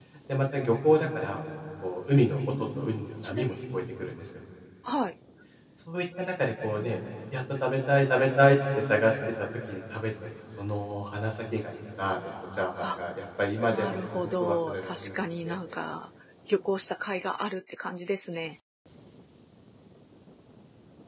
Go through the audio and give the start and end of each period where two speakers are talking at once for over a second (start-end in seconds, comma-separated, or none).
13.7-15.5